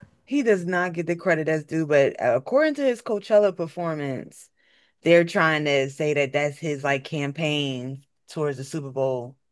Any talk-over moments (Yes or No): No